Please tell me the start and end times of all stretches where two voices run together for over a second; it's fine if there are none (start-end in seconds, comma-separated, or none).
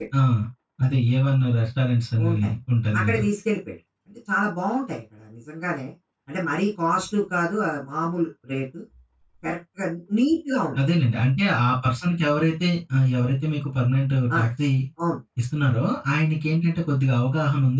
none